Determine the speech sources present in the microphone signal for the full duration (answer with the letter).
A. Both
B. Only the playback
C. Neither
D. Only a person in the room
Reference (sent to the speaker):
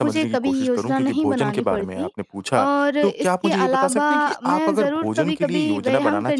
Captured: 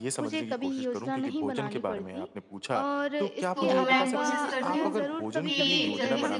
A